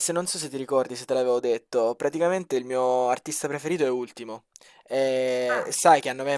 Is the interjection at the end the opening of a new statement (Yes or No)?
No